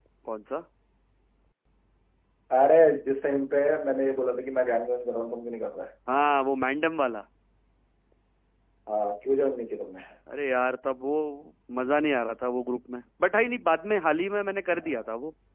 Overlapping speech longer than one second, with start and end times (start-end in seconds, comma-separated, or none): none